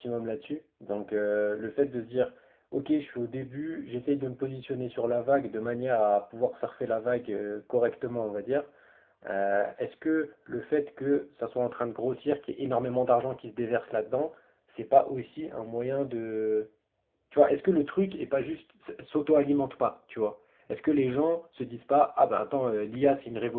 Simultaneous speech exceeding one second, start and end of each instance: none

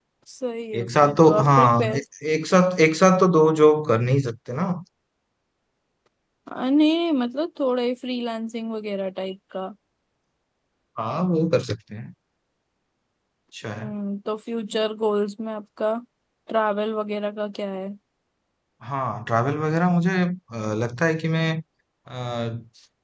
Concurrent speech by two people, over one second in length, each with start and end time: 0.8-2.0

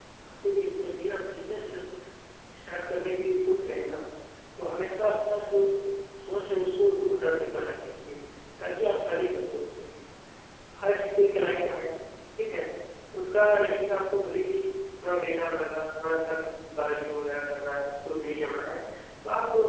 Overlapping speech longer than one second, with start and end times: none

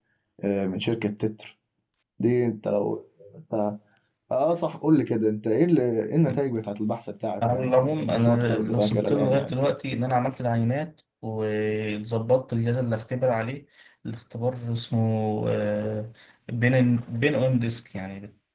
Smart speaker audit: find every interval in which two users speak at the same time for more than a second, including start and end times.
7.5-9.5

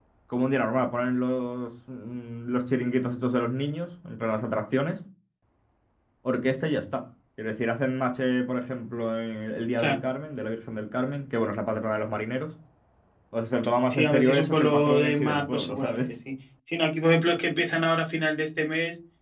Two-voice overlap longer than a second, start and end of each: 13.9-16.0

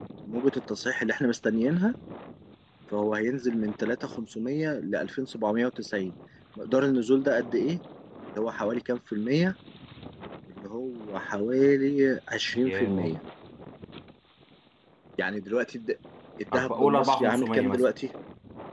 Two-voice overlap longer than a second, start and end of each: 16.5-17.8

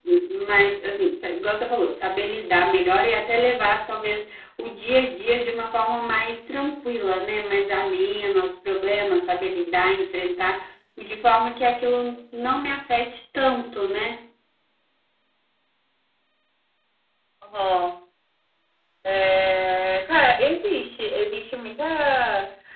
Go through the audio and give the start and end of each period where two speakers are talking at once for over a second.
none

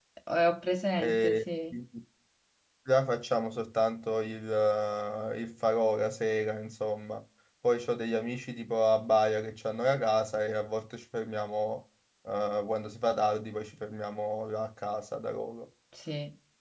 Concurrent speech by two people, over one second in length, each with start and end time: none

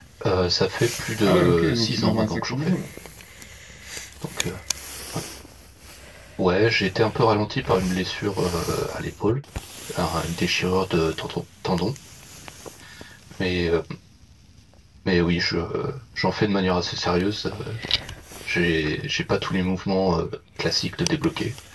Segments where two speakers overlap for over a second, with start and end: 1.2-2.7

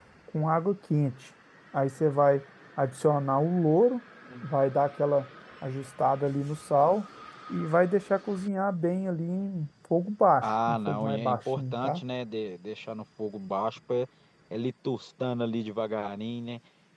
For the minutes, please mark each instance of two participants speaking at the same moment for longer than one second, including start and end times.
10.4-12.0

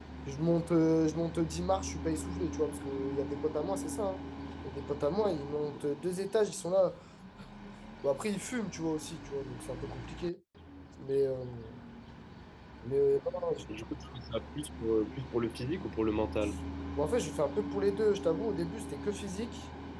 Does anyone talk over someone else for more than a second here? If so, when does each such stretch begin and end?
none

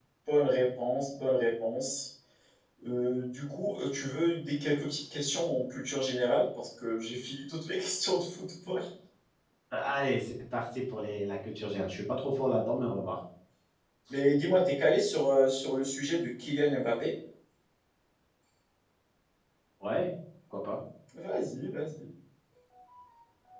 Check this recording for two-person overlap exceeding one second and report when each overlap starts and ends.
none

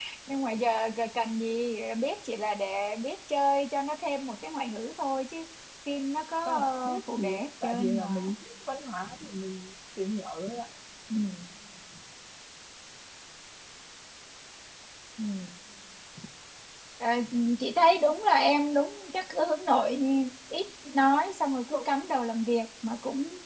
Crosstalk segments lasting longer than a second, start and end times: 6.5-8.1

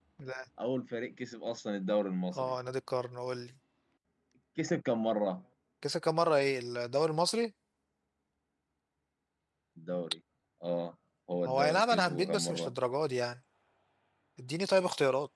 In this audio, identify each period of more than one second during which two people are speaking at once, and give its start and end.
11.5-12.7

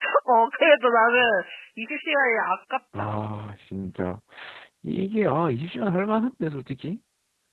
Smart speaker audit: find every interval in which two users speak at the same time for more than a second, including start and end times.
none

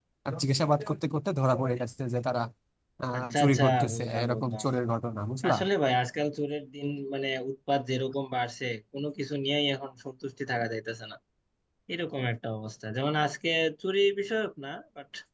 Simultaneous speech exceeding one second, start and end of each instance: 3.2-4.7

